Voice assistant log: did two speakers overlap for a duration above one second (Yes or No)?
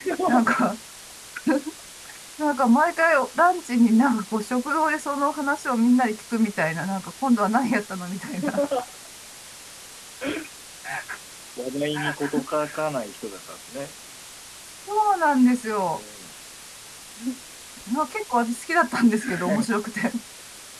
No